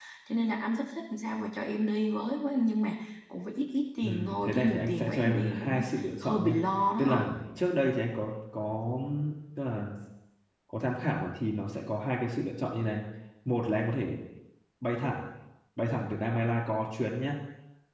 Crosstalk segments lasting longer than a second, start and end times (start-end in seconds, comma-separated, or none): 4.0-5.8